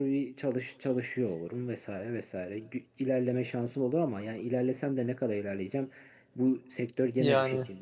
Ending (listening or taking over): listening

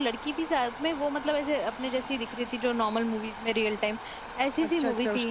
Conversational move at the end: taking over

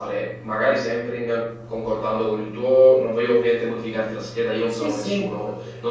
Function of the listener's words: listening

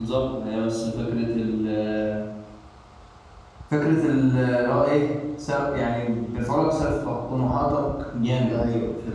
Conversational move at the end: listening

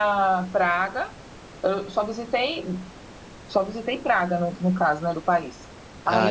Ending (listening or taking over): listening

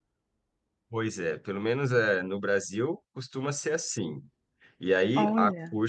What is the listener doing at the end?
listening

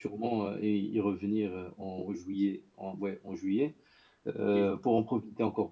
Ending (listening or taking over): listening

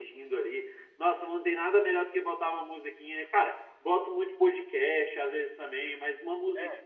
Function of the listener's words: listening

